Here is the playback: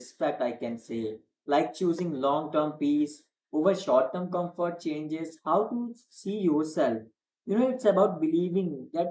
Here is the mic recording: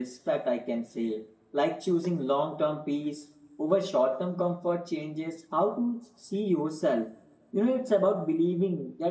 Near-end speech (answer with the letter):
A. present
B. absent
B